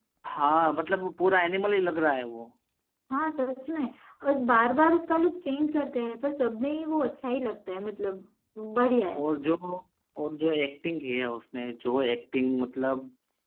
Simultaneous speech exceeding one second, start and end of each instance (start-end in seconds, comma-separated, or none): none